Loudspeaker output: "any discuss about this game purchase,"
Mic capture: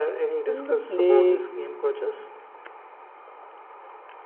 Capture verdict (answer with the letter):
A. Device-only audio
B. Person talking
B